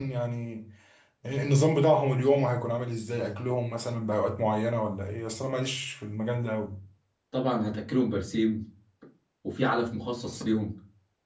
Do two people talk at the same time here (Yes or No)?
No